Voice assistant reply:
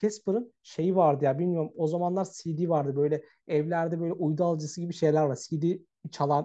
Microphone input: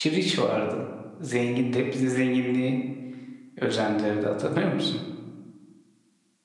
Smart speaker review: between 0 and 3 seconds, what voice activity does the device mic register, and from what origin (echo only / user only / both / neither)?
user only